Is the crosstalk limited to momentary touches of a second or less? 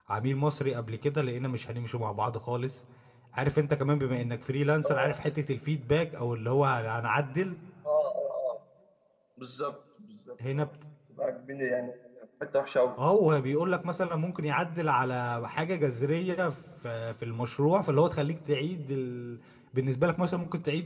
Yes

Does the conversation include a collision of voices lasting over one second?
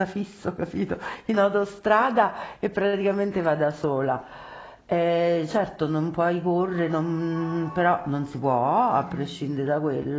No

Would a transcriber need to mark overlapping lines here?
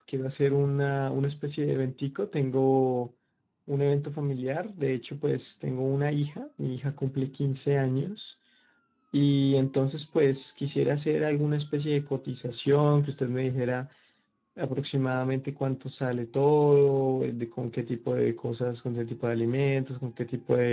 No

